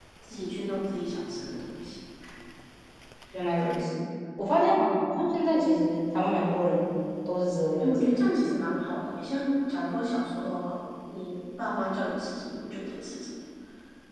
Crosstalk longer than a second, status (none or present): none